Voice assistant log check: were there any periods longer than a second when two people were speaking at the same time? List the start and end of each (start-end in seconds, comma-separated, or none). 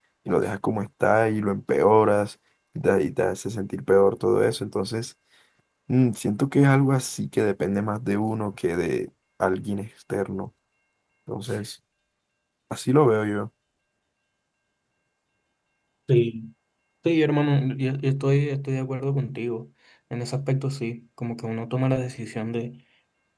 none